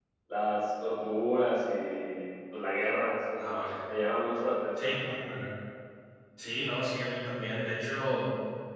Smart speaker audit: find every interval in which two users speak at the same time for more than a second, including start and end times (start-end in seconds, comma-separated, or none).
none